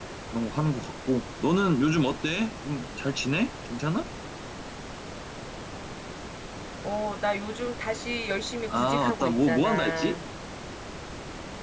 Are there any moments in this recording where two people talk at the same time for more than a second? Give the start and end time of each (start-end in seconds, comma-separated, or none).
8.7-10.2